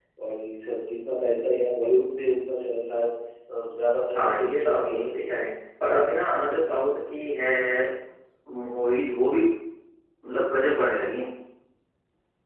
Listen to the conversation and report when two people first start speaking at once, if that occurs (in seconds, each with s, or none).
4.1 s